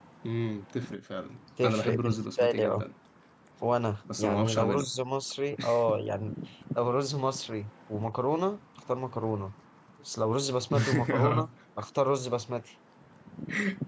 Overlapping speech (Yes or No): Yes